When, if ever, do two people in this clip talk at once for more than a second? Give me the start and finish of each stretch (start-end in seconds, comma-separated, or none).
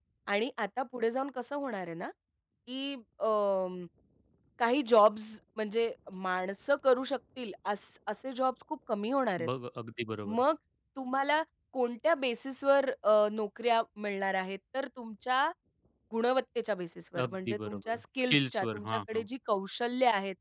17.2-19.2